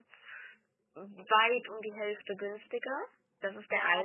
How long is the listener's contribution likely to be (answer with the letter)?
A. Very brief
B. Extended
B